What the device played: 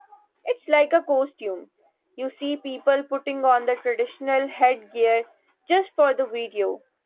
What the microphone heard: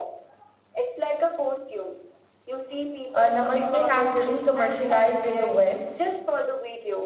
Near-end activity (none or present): present